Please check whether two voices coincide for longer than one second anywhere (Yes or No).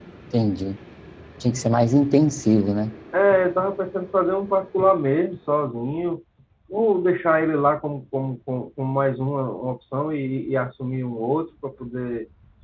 No